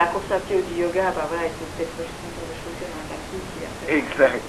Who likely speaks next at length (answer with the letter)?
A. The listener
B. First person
A